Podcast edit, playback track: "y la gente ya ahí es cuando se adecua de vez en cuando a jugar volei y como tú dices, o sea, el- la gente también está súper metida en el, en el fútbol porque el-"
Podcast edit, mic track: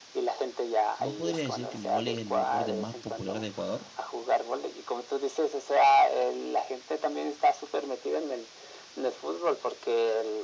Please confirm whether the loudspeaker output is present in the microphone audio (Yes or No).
Yes